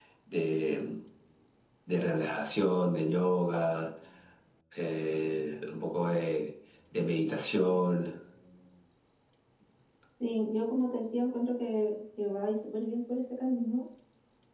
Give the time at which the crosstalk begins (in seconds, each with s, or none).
none